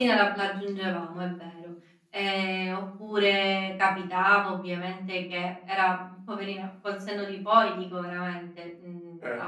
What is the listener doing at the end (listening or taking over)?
listening